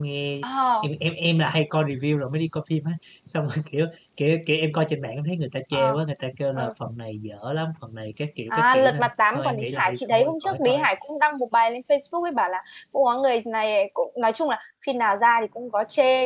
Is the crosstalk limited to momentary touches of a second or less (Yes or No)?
No